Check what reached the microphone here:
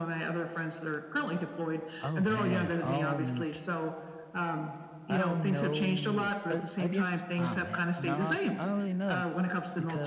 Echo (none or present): present